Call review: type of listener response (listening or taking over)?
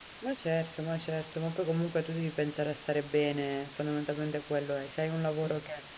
listening